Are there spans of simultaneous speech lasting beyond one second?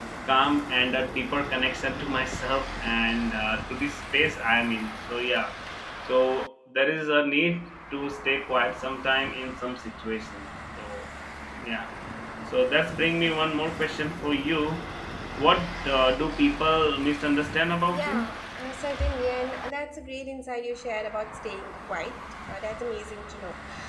No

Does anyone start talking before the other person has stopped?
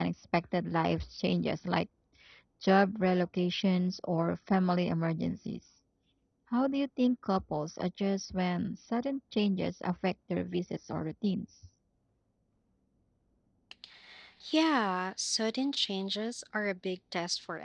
No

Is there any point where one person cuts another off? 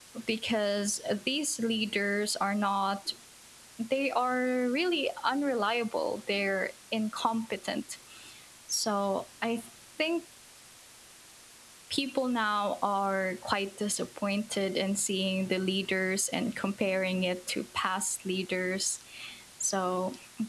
No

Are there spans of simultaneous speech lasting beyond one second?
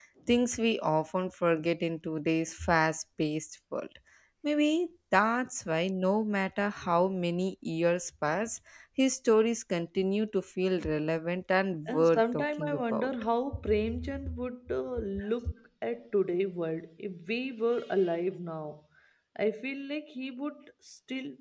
Yes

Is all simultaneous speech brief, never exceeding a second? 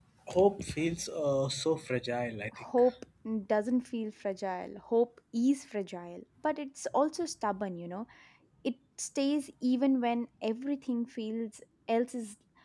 Yes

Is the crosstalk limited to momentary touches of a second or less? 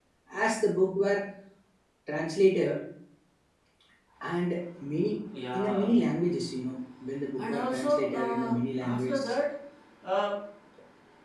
No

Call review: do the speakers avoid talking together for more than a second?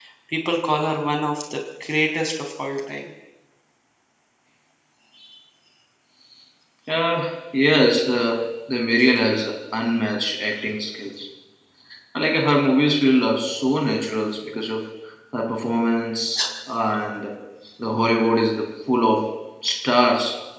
Yes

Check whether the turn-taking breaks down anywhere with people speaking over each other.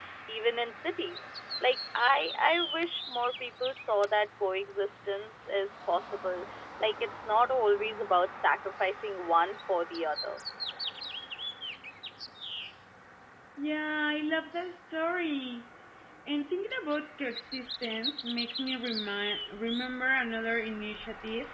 No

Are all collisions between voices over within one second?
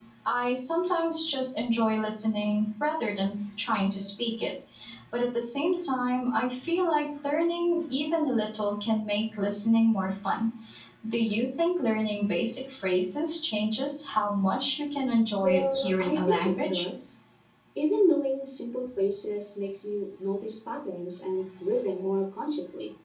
No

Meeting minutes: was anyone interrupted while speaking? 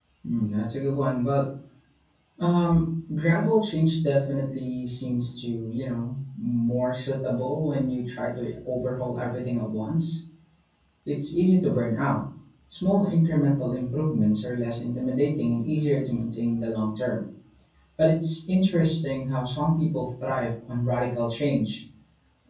No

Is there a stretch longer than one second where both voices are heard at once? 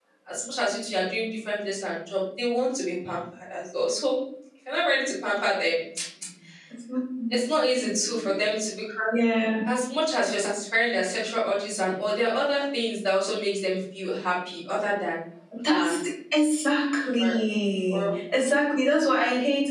No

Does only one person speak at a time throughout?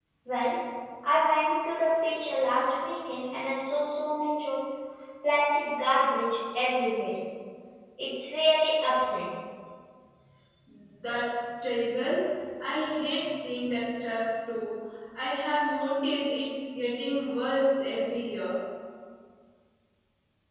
Yes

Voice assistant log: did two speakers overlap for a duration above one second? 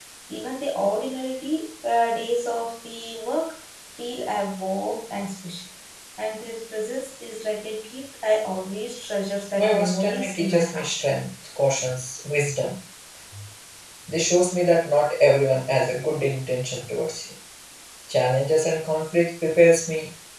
Yes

